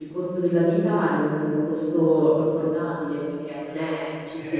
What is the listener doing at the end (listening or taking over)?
taking over